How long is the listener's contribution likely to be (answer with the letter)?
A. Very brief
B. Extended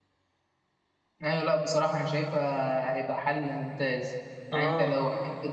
A